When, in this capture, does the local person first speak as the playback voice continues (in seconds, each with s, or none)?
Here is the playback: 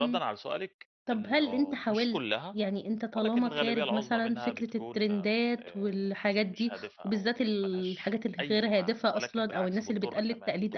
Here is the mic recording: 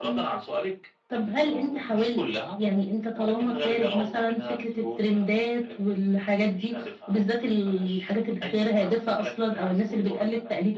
none